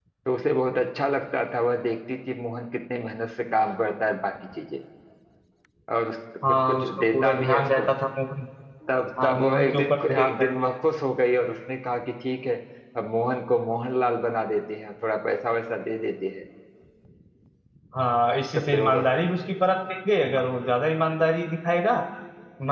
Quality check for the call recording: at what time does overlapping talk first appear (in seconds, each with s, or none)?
6.5 s